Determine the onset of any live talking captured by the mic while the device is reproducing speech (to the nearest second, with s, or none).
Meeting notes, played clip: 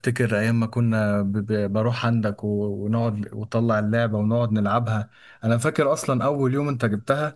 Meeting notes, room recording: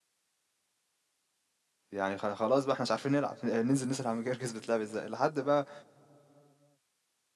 2 s